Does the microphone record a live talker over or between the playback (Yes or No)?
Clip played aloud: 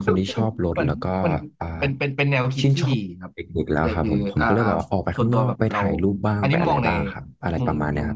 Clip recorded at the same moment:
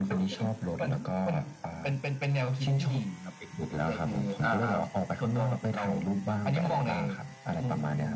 No